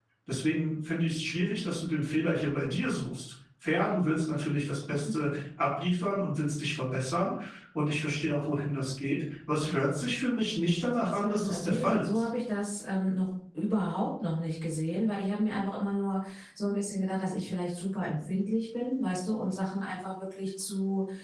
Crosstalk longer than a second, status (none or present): present